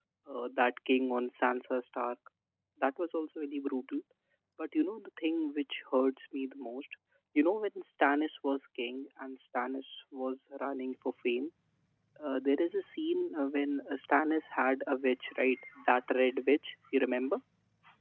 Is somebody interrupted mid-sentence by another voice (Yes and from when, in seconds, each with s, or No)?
No